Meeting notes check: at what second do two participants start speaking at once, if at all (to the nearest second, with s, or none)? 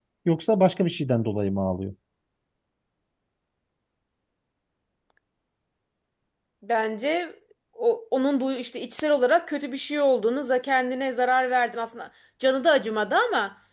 none